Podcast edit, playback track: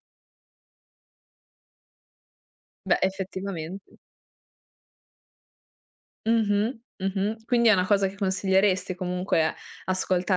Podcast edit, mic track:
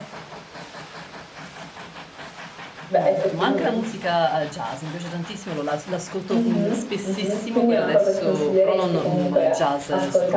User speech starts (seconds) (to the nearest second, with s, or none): 3 s